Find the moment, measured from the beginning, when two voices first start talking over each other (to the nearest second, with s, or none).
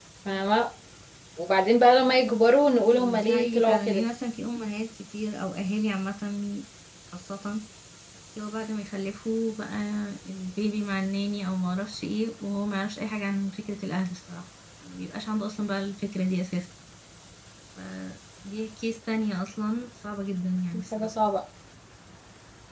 3 s